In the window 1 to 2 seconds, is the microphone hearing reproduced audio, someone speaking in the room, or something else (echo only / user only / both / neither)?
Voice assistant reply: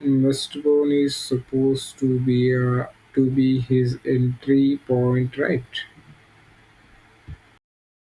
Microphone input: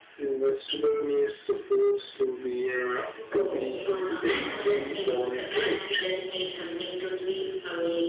echo only